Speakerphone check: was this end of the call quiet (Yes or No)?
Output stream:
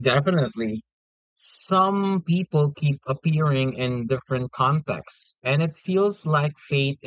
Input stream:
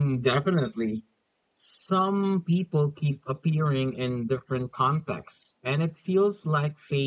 Yes